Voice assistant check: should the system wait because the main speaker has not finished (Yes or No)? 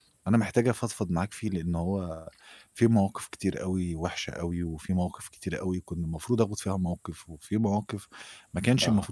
Yes